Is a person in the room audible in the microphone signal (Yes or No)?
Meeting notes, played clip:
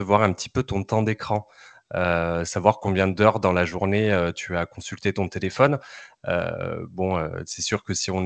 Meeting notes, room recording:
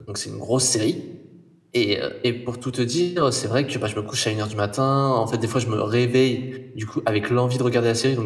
Yes